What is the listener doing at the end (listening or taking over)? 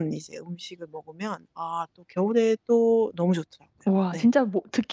taking over